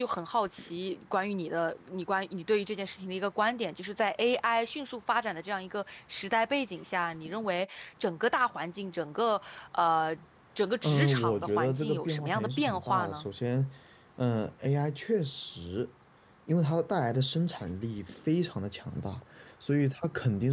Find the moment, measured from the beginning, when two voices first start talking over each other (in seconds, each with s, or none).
10.8 s